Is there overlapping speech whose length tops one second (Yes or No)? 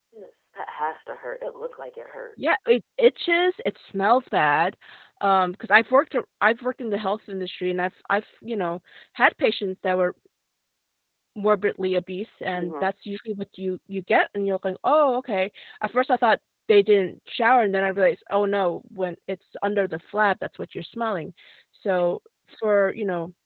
No